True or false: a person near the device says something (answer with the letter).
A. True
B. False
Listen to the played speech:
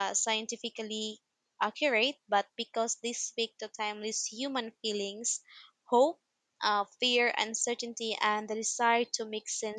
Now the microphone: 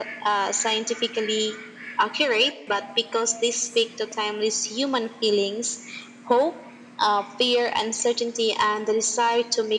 B